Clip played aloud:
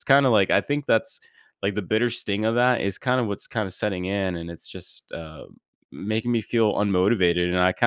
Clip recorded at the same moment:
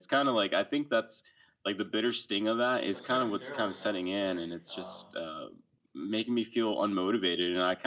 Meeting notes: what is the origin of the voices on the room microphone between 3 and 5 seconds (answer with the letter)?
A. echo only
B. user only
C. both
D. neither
C